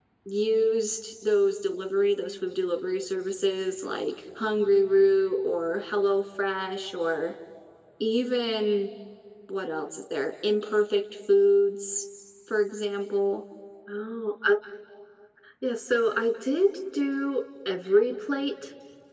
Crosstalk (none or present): none